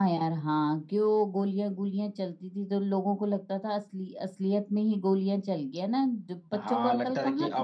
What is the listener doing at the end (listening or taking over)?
taking over